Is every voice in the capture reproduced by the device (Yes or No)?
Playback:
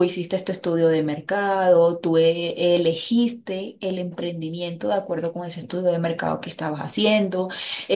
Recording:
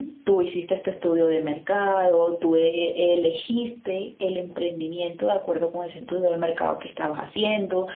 Yes